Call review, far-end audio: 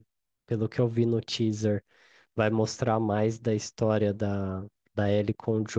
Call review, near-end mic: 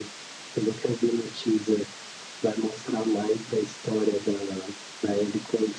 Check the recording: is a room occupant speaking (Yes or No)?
No